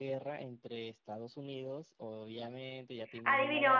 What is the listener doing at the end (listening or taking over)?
taking over